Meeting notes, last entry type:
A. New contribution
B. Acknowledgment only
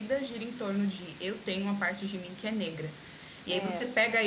B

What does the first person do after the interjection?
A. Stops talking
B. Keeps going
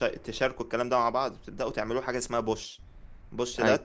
B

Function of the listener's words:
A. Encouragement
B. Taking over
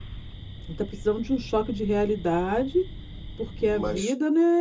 A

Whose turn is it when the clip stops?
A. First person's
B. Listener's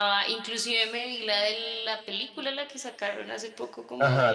B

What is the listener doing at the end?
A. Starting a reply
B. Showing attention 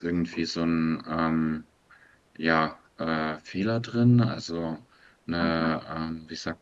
B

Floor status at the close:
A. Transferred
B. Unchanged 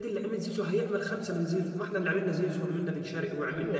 A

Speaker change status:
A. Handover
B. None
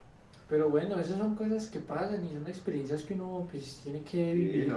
A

